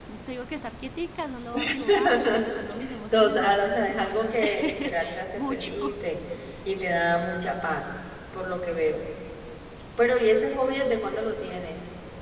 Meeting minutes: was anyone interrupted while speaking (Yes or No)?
Yes